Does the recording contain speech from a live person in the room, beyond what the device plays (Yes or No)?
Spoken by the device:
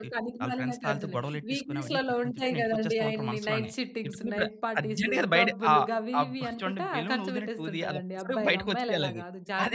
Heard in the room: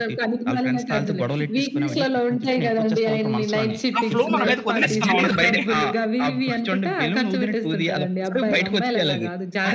Yes